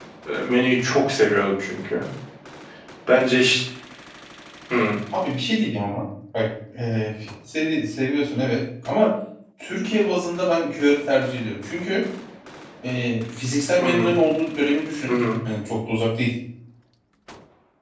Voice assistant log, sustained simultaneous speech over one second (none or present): none